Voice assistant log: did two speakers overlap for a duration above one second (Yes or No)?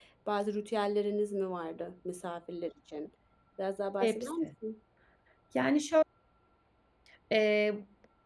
No